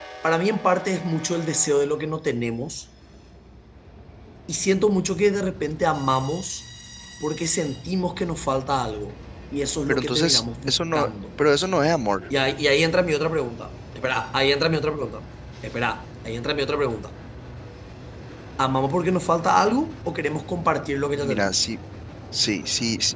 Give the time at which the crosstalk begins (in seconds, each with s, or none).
9.9 s